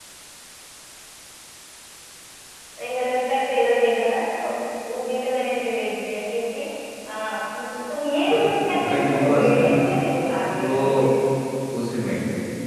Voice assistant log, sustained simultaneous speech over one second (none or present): present